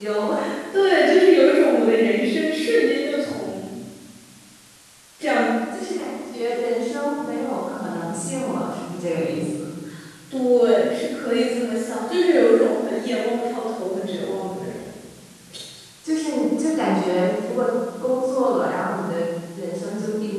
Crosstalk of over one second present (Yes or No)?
No